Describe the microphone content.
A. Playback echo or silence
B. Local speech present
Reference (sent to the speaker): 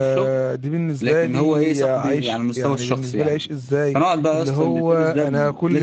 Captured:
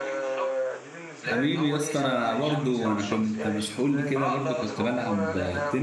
B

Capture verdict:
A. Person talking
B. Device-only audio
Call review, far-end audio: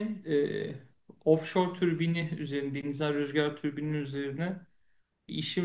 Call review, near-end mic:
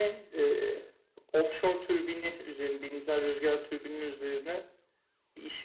B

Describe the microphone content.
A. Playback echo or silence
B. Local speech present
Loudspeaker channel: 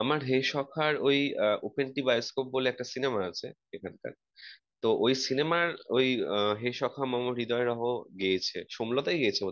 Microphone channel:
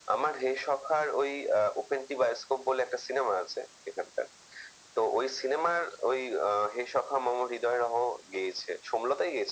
A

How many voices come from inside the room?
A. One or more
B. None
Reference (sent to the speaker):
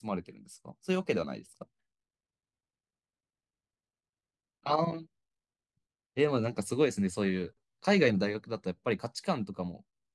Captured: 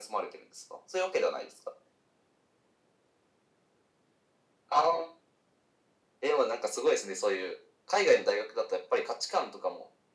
B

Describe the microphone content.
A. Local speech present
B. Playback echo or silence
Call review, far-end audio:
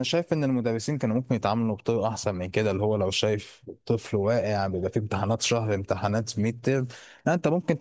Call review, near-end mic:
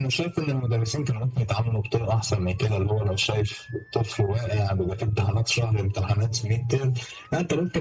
B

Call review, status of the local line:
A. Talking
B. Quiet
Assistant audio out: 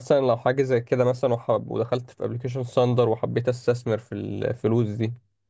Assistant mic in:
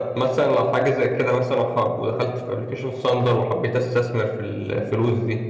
B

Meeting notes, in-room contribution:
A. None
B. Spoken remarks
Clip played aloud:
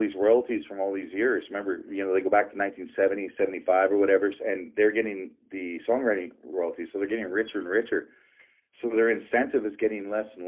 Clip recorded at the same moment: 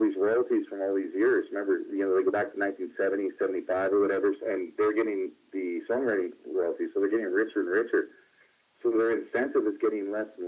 A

